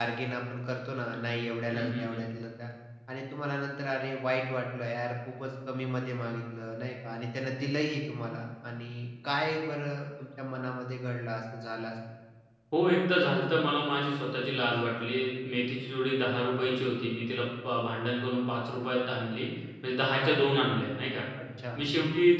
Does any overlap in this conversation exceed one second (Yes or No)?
No